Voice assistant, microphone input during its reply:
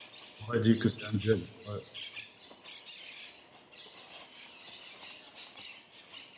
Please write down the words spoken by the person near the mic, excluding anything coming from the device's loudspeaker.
j'aurais dit que c'est un duel. Ouais.

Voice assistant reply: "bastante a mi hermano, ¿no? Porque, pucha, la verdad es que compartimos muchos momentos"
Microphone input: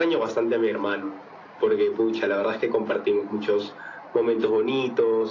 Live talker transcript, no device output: none

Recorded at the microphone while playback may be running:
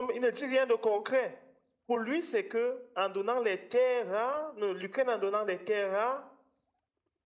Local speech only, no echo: none

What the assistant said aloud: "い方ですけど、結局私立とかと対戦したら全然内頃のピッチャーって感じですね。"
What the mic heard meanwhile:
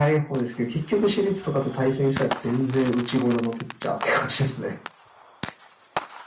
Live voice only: none

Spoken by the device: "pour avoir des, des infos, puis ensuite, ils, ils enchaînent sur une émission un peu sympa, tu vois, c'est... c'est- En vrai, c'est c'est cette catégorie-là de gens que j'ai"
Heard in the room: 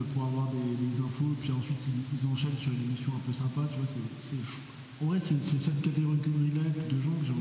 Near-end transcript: none

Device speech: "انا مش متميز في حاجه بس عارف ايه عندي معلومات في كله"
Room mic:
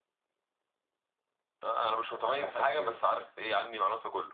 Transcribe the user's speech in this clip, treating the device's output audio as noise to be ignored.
يعني حتى في الكيمستري يعني

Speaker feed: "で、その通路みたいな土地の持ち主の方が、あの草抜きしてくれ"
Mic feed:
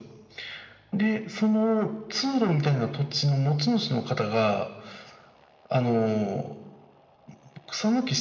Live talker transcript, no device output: none

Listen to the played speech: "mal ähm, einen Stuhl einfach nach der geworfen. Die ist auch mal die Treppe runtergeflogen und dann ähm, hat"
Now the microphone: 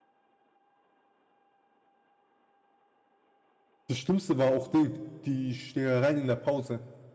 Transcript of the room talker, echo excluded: Das Schlimmste war auch Ding, die Schlägereien in der Pause,

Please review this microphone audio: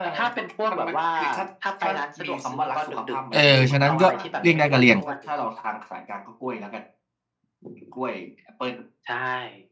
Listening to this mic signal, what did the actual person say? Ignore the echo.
เออฉะนั้นก็เลี่ยงได้ก็เลี่ยง

